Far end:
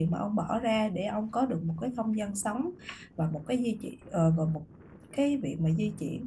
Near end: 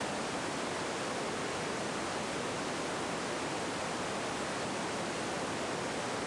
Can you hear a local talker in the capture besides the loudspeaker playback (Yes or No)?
No